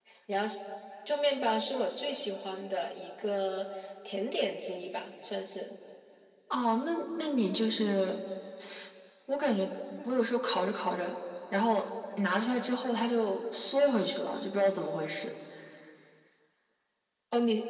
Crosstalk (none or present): none